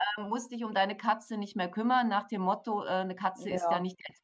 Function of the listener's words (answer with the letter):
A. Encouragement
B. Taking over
A